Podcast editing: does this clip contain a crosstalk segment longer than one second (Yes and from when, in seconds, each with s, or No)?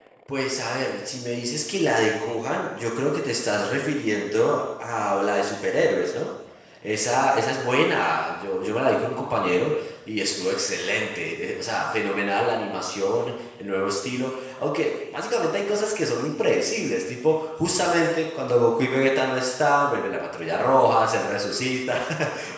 No